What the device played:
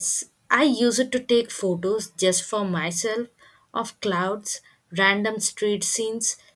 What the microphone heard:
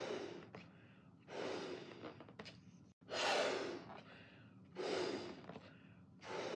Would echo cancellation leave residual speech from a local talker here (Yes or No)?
No